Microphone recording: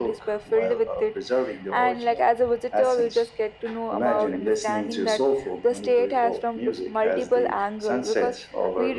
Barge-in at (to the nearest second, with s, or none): none